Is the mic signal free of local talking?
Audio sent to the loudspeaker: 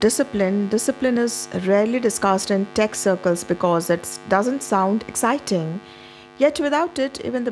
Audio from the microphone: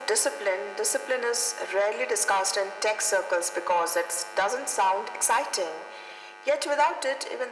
Yes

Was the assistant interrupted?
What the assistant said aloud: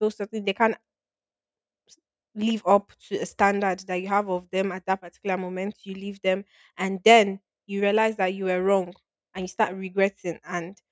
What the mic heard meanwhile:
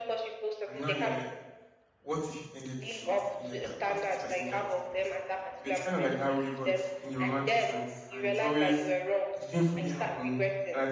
Yes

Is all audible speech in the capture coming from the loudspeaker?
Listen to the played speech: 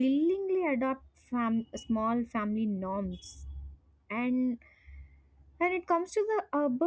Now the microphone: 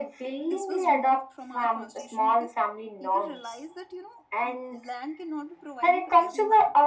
No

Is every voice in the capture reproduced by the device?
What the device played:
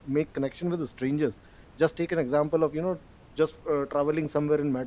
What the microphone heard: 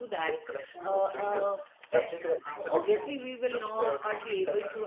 No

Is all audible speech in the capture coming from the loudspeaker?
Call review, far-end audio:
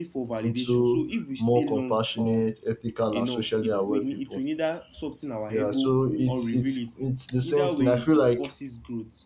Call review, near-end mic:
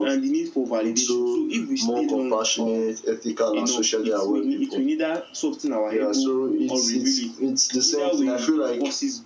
Yes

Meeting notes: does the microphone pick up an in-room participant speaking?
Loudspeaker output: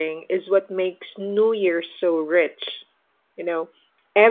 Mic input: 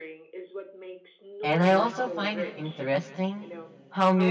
Yes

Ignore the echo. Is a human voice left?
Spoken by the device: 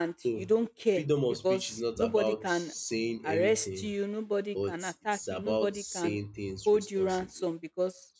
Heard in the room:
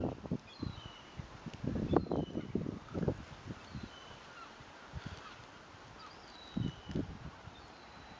No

